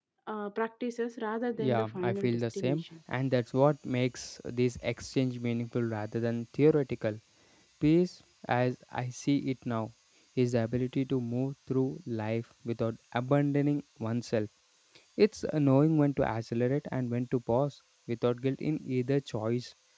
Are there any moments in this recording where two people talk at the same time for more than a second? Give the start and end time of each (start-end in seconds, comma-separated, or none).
1.6-2.8